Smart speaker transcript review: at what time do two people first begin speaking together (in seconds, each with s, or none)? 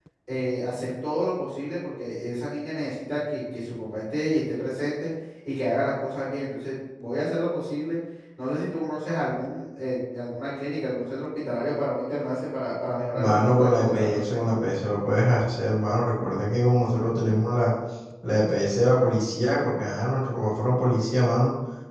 13.1 s